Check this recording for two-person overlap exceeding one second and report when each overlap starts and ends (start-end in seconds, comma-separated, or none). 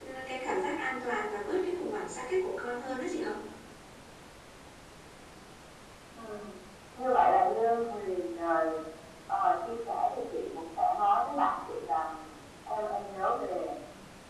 none